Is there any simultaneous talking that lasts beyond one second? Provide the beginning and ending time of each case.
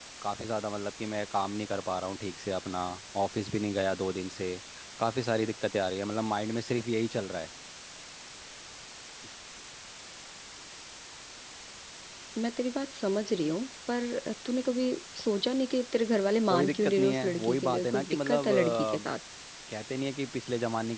16.5-19.1

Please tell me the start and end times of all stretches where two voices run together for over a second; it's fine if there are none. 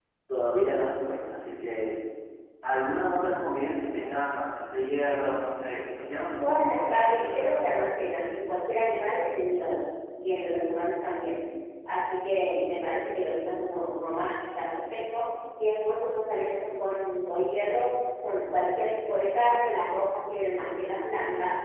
6.4-7.7

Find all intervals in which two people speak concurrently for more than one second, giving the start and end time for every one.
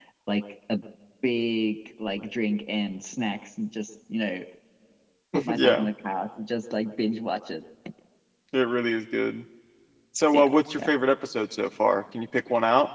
none

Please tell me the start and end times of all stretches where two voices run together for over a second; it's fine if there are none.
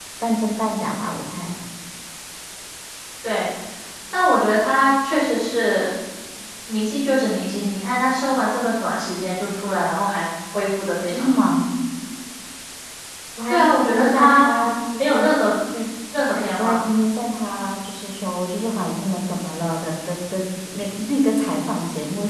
13.5-15.3

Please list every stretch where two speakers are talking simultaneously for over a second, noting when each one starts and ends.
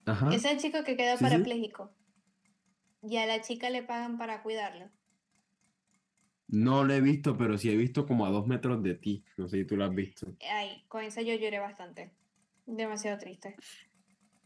none

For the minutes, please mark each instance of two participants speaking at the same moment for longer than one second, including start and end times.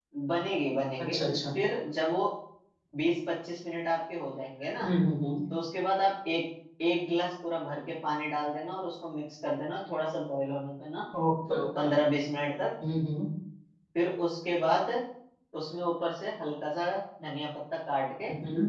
none

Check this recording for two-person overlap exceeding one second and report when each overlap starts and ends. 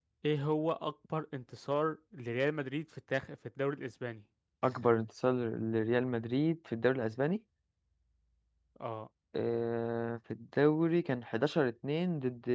none

